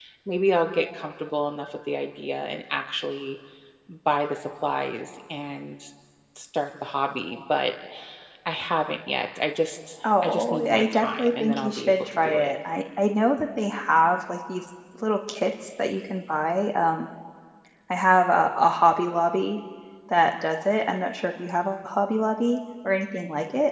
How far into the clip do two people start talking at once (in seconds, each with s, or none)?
10.0 s